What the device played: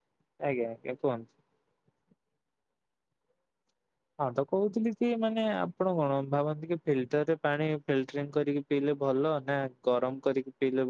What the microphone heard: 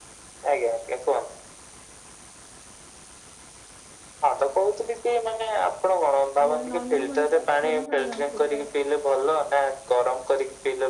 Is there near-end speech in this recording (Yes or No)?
Yes